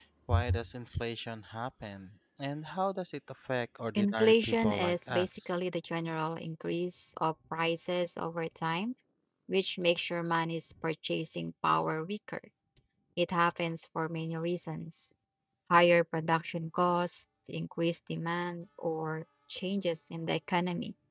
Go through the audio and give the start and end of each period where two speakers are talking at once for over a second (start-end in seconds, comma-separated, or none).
4.0-5.5